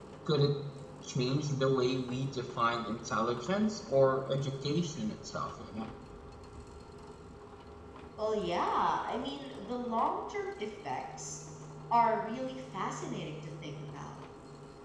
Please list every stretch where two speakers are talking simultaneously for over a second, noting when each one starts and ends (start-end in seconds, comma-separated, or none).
none